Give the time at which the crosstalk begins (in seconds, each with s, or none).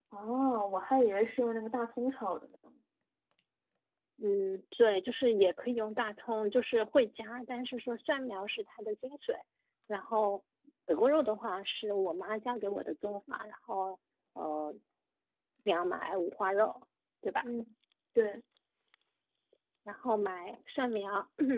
none